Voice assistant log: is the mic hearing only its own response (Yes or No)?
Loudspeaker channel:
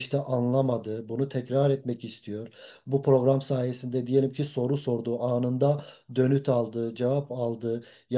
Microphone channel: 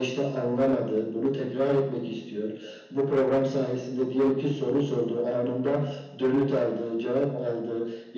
Yes